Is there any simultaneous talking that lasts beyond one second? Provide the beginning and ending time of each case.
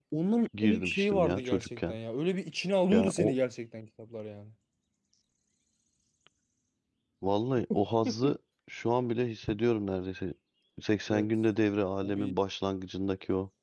0.6-2.0

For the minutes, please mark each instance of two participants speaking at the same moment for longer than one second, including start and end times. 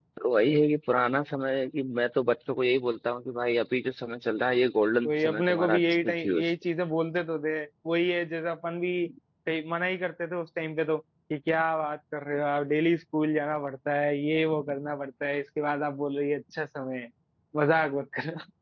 5.1-6.5

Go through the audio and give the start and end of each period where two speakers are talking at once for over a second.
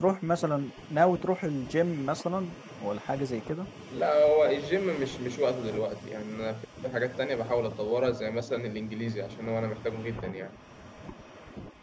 none

